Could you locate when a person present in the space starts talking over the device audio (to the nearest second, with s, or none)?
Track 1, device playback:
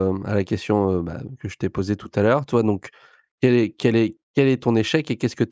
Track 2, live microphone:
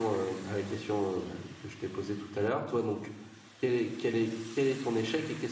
none